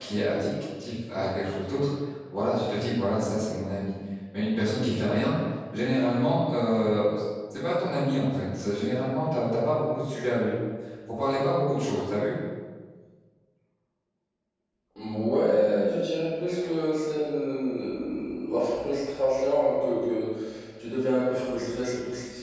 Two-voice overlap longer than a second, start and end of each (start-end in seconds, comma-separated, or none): none